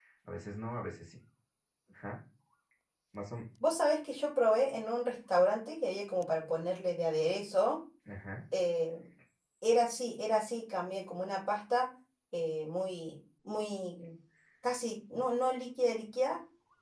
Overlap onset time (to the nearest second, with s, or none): none